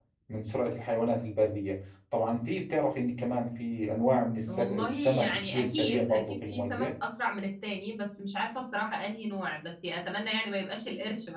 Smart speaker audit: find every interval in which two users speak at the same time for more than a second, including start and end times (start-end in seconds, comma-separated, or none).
4.5-6.9